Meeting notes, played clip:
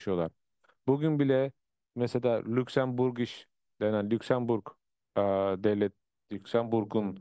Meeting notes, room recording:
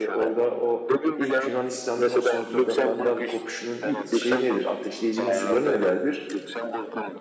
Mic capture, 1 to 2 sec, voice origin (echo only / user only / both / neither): both